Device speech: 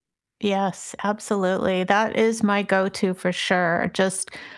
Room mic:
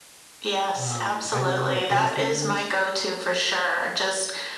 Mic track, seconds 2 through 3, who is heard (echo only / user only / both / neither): both